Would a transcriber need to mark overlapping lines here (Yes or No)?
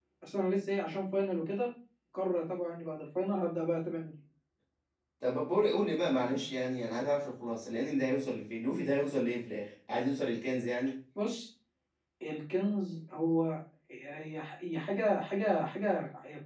No